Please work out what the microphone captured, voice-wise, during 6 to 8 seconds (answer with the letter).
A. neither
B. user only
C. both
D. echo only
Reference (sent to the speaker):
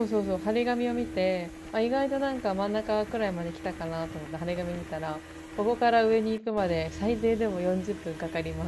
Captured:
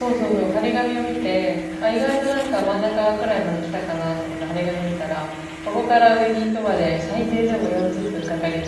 D